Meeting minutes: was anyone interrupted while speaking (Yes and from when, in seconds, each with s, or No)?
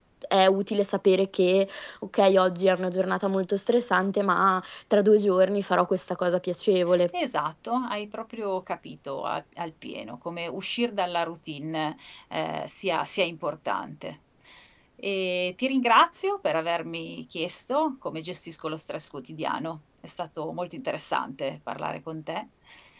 No